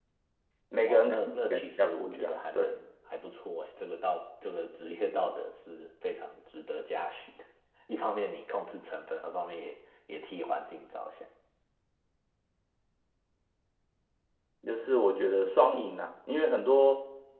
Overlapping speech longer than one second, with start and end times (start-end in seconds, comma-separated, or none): 0.8-2.8